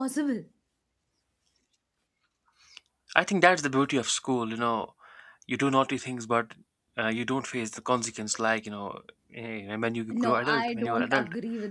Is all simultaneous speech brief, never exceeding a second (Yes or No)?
No